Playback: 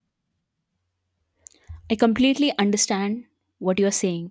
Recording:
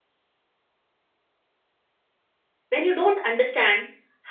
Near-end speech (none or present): present